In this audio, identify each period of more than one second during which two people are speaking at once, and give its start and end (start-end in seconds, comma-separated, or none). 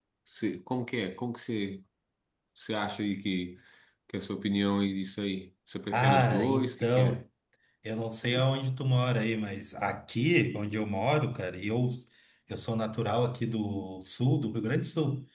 5.9-7.2